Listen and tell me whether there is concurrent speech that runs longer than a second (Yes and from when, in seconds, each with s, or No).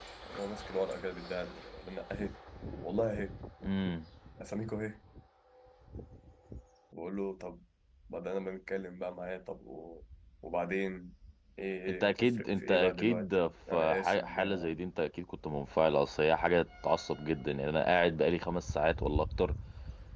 Yes, from 12.0 s